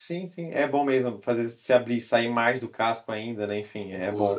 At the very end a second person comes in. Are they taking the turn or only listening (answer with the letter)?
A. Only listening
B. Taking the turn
B